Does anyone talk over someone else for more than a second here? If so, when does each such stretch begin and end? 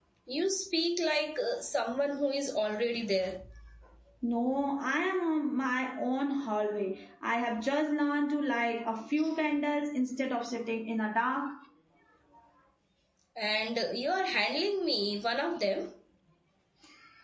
none

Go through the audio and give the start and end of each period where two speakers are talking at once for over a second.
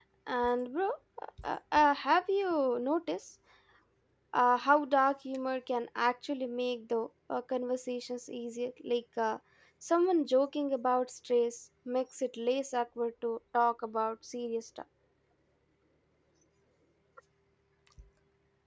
none

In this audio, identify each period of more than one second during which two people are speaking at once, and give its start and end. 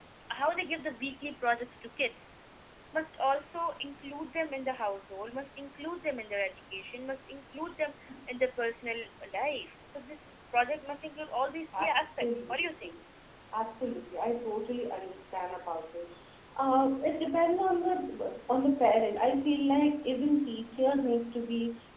11.7-12.9

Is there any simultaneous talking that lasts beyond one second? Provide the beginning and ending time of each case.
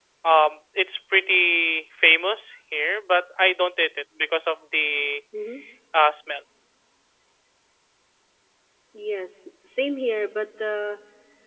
none

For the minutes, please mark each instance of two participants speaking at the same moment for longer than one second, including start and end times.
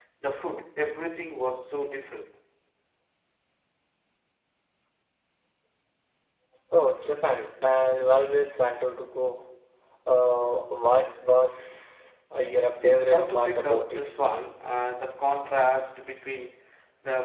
12.8-14.1

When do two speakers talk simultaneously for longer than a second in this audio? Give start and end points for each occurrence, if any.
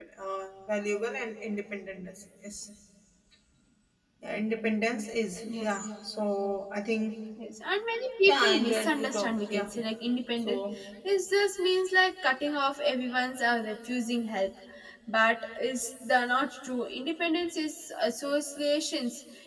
8.3-9.7

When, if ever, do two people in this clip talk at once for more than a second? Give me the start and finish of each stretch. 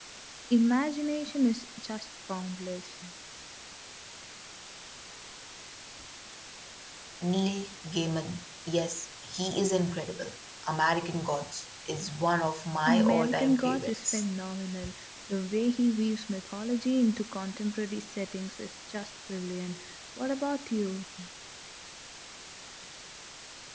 12.9-14.2

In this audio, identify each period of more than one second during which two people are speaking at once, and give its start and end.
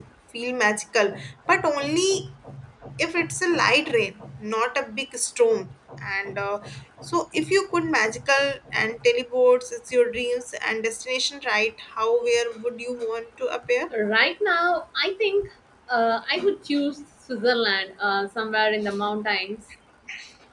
none

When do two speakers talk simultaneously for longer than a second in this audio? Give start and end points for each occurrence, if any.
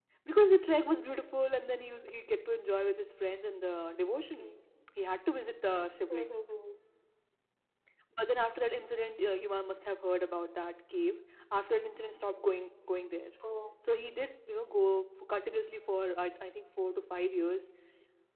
none

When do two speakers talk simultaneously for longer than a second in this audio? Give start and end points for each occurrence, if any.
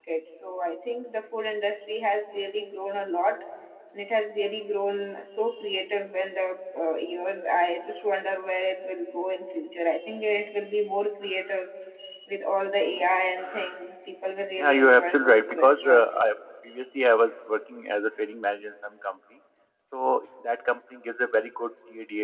14.6-16.3

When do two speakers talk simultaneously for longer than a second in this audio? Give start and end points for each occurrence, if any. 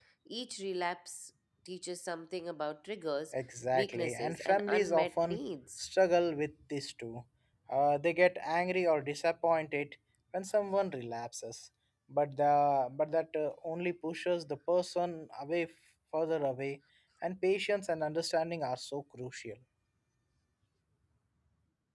3.7-5.4

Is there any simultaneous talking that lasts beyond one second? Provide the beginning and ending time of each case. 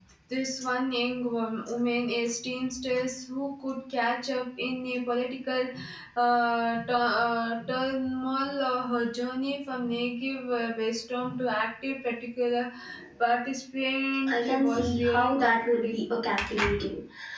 14.3-16.0

